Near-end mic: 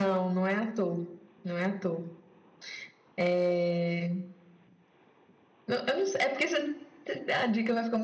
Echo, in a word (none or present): none